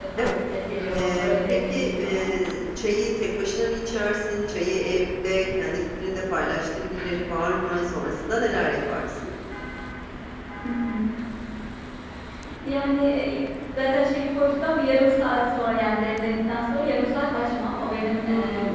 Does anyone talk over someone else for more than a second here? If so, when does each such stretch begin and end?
0.9-2.3

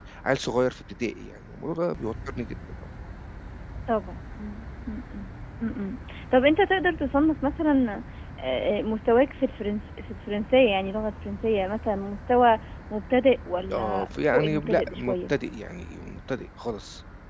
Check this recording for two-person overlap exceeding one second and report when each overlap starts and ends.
13.7-15.3

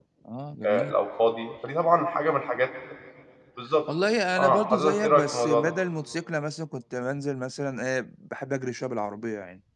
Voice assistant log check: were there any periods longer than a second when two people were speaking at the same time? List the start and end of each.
4.4-5.7

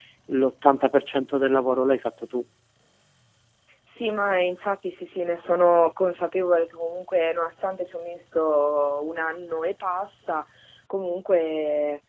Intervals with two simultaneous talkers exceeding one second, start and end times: none

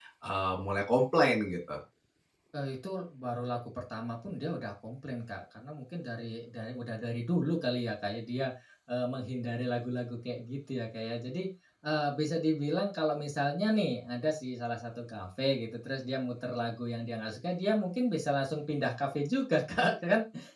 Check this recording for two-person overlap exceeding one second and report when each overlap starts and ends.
none

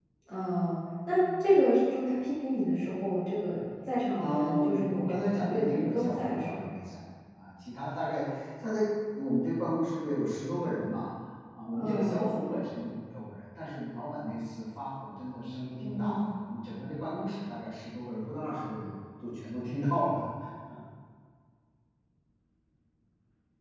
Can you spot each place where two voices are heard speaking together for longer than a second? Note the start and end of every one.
4.2-6.6

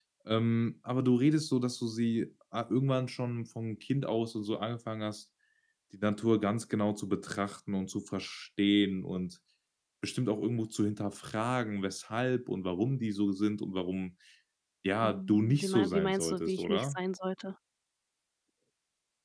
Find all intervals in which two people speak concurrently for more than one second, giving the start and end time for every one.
15.0-17.0

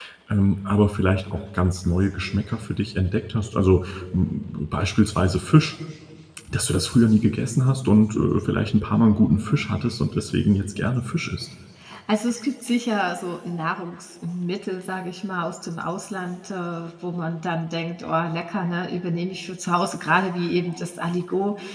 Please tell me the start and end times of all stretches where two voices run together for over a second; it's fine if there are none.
none

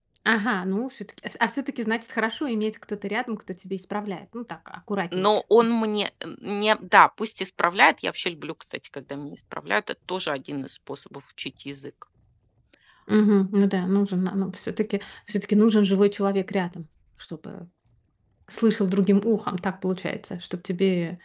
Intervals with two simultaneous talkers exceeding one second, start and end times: none

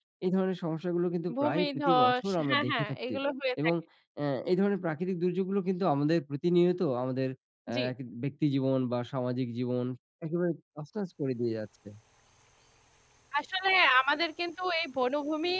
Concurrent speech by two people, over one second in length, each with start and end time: 1.4-3.1

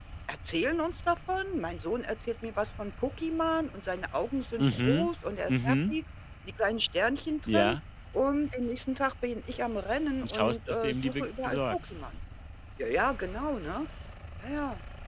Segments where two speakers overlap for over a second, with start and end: 10.2-11.8

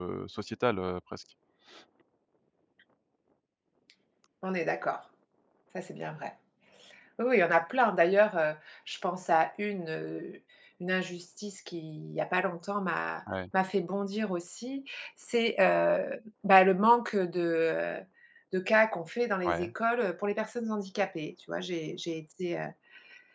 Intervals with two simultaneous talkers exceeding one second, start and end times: none

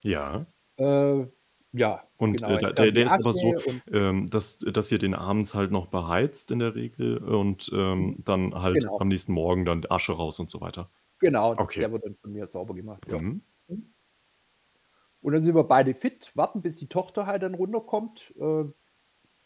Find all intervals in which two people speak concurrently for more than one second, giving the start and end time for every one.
2.3-3.5

